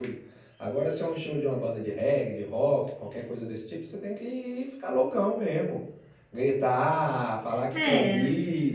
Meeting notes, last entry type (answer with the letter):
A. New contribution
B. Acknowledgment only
B